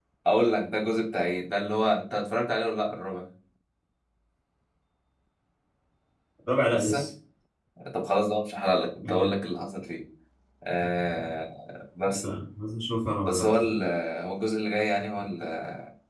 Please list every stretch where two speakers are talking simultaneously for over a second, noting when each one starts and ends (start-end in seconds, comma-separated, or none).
none